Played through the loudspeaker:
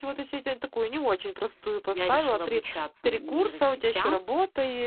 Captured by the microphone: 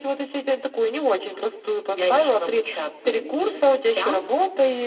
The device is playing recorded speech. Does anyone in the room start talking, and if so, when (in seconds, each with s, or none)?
none